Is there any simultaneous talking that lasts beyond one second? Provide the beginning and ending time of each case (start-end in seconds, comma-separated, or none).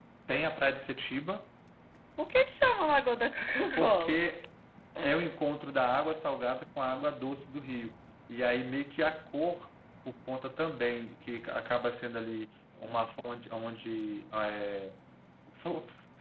none